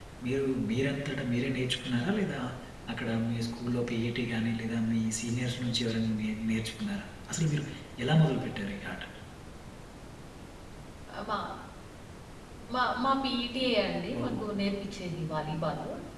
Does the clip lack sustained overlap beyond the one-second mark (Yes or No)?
Yes